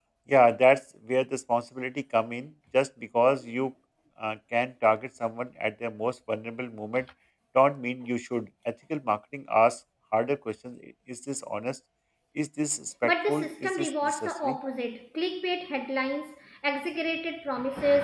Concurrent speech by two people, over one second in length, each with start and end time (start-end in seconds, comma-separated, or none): 13.0-14.6